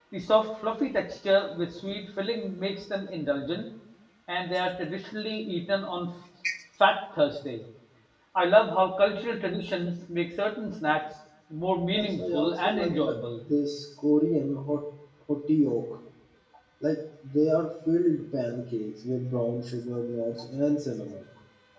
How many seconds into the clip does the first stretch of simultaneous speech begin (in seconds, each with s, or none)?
11.9 s